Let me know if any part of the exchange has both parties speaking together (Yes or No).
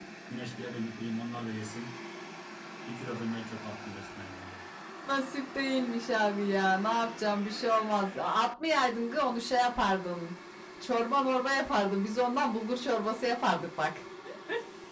No